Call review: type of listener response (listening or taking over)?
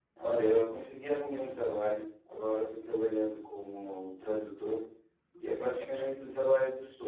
listening